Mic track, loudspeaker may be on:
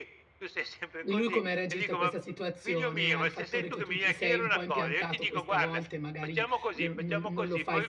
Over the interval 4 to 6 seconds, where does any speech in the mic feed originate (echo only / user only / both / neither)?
both